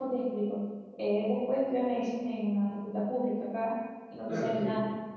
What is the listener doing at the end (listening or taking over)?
taking over